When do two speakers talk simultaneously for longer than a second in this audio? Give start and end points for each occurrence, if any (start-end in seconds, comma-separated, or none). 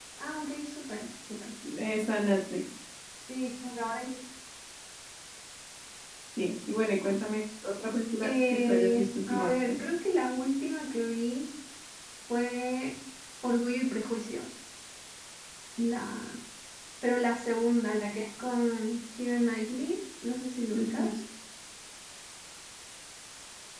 8.2-9.8